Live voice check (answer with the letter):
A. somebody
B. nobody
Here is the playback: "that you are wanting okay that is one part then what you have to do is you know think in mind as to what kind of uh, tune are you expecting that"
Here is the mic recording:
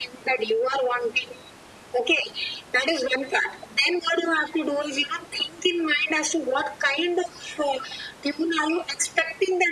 B